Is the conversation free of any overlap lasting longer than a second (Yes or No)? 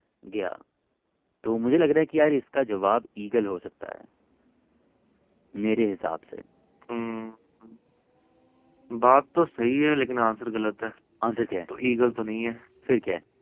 Yes